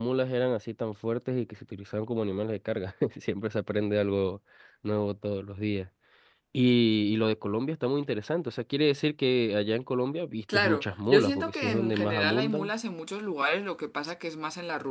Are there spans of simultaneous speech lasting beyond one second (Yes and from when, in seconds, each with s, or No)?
Yes, from 10.5 s